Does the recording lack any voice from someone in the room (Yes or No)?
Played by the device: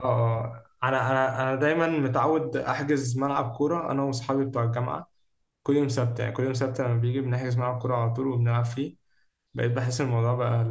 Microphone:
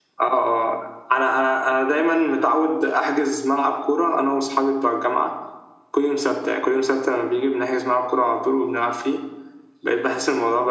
Yes